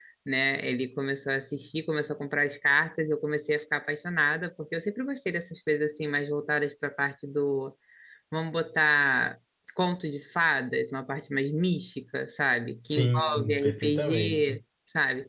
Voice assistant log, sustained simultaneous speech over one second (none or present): present